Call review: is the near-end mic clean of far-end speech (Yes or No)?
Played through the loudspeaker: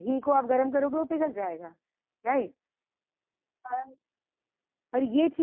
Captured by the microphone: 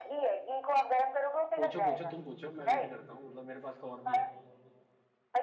No